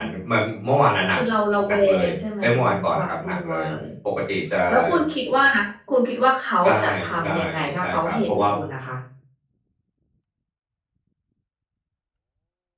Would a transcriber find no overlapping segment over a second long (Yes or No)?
No